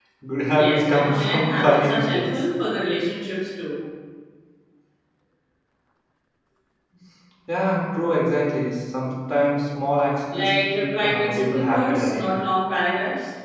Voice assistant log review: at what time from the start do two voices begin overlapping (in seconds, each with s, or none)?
0.5 s